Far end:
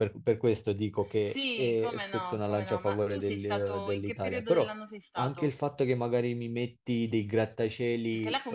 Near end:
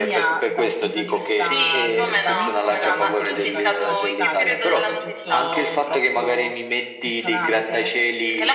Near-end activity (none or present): present